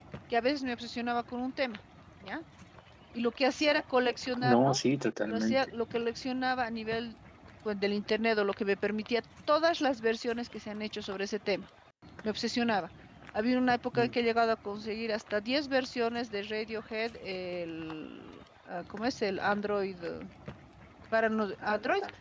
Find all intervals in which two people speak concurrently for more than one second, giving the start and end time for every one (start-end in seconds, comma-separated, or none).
none